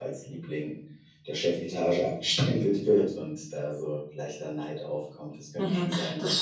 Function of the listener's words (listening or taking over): taking over